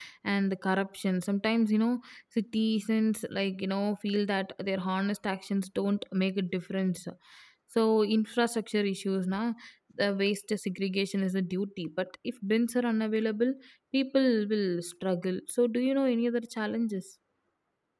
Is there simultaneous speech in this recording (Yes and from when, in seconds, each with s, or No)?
No